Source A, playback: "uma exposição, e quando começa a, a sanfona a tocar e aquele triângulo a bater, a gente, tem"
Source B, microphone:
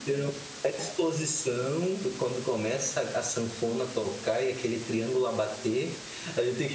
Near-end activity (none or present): none